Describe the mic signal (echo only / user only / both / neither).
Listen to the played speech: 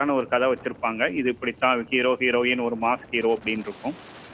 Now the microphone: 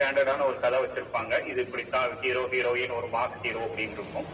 echo only